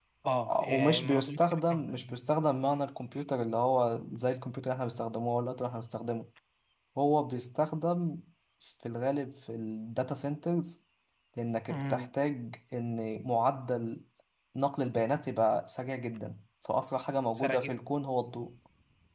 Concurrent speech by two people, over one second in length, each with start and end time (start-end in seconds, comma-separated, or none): 0.7-2.2